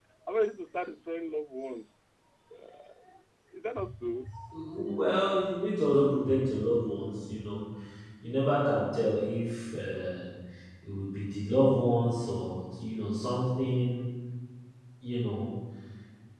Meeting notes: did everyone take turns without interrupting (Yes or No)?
Yes